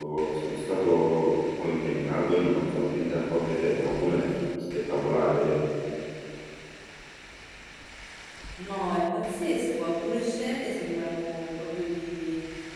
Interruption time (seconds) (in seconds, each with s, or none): none